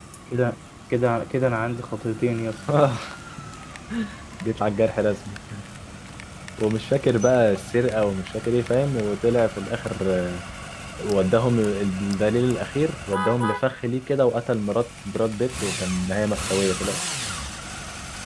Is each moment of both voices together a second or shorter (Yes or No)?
Yes